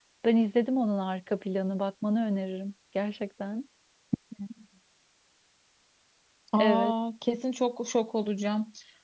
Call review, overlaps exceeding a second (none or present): none